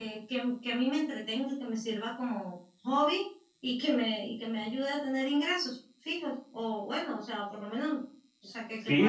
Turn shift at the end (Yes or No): Yes